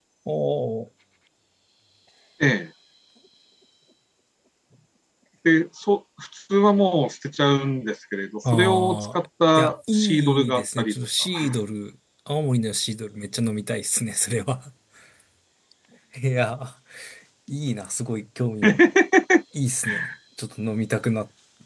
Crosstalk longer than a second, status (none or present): present